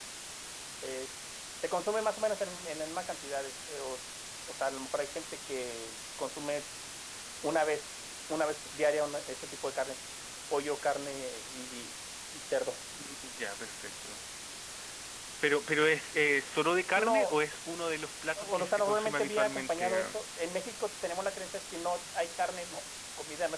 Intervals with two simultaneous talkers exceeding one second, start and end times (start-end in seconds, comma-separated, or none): 18.4-20.0